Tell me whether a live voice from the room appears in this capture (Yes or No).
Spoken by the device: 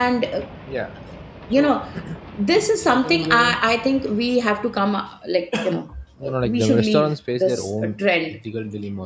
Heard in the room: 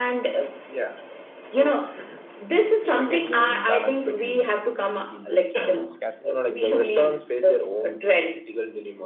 Yes